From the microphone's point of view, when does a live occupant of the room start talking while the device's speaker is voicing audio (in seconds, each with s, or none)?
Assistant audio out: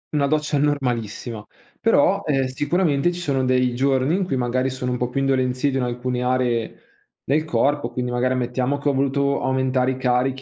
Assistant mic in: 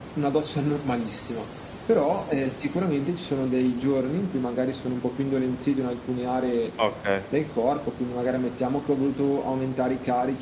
6.8 s